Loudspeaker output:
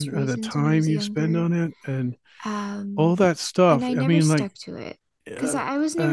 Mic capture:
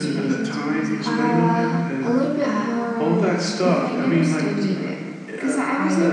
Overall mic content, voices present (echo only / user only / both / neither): both